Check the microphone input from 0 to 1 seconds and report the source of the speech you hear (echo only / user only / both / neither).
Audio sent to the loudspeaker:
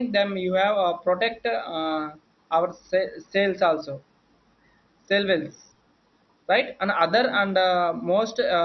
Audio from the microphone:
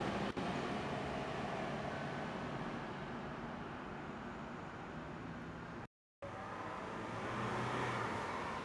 neither